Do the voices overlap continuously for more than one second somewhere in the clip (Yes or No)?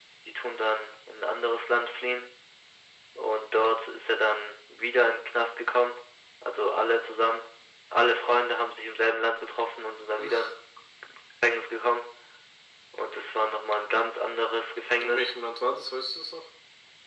No